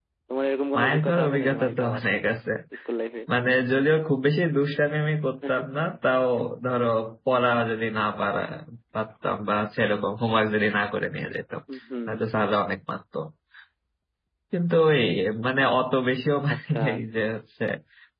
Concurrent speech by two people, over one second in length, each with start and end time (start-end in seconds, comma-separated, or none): 0.8-2.0